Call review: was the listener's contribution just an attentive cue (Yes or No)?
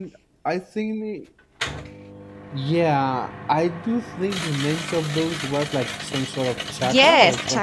No